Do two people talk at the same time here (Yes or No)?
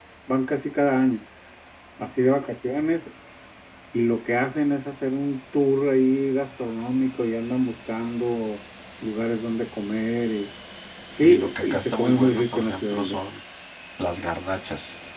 Yes